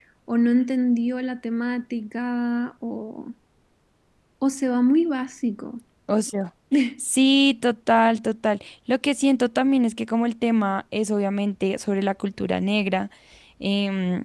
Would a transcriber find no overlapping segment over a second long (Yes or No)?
Yes